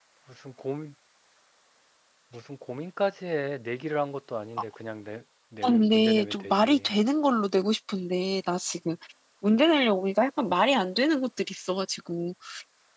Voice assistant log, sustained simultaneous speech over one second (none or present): present